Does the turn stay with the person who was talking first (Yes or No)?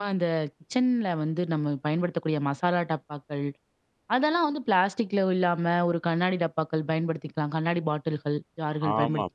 No